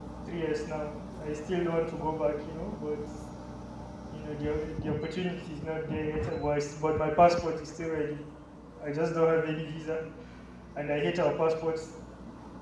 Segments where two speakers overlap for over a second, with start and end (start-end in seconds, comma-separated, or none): none